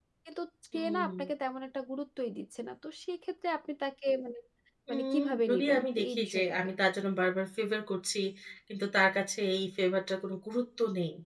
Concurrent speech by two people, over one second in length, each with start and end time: 4.9-6.7

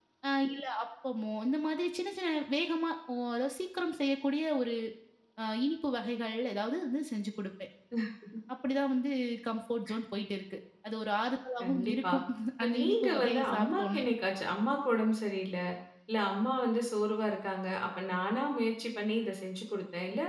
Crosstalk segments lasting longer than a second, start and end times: 12.6-14.1

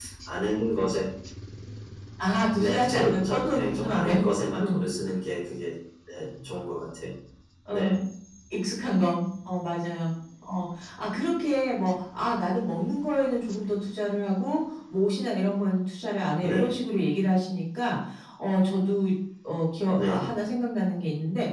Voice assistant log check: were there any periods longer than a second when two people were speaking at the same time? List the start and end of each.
2.6-4.2

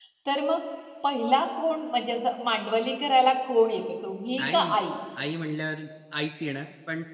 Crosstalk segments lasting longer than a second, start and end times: none

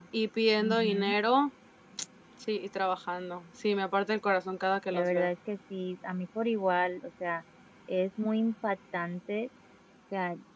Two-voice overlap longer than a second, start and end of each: none

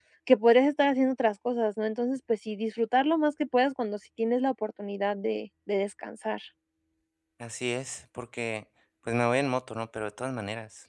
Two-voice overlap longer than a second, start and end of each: none

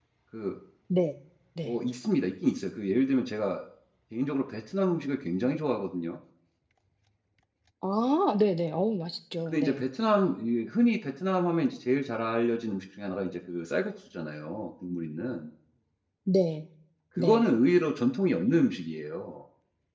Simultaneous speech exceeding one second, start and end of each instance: none

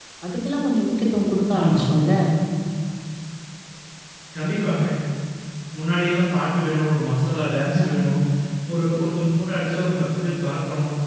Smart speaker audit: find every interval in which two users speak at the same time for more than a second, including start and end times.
none

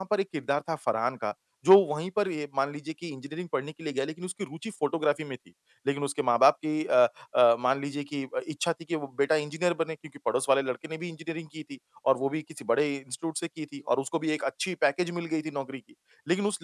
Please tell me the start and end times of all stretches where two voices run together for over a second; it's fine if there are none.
none

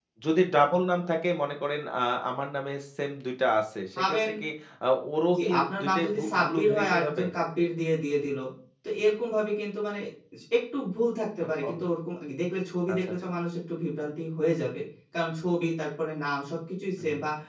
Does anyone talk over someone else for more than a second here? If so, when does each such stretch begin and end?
5.3-7.2

